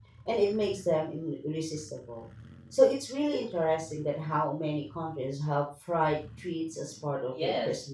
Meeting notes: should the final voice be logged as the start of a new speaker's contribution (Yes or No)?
Yes